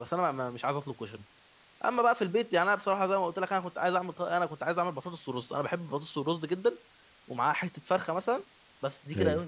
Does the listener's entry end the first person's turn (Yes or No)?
No